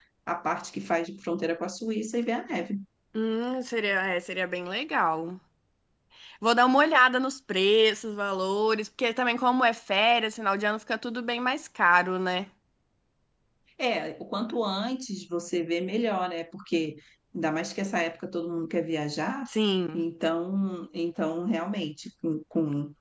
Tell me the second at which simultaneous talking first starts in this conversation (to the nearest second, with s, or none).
none